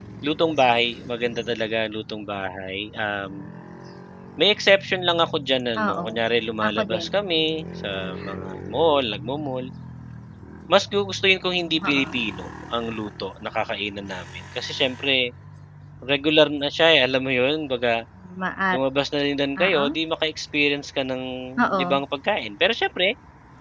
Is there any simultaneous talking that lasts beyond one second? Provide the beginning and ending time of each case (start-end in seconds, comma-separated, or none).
none